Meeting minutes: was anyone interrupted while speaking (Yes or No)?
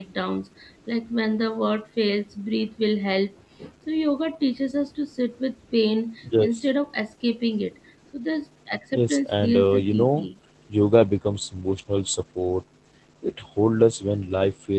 Yes